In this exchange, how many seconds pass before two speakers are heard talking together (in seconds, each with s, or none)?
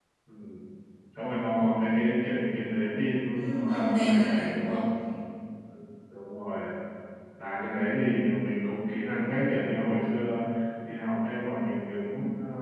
3.3 s